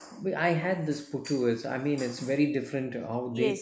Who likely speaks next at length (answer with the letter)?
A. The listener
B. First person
A